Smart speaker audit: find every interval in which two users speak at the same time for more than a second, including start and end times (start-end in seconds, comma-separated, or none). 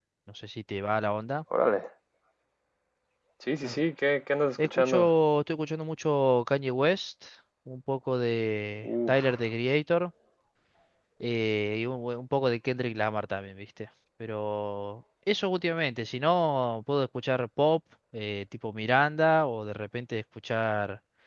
none